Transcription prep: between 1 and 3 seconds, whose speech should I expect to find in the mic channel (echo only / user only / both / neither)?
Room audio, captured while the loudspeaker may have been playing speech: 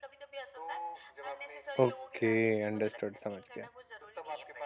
both